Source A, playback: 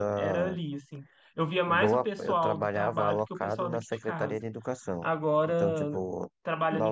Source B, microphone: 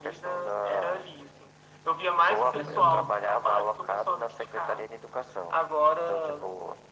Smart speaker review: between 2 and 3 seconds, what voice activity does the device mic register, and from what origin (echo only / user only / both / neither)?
both